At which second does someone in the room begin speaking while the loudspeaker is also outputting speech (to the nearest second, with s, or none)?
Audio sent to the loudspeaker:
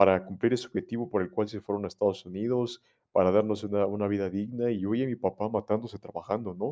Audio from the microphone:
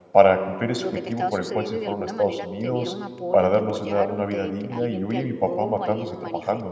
1 s